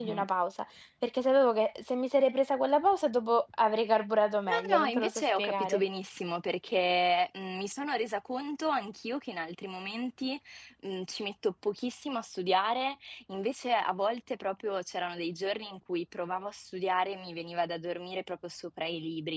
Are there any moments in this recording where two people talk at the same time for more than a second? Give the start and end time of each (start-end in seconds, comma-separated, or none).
4.5-5.8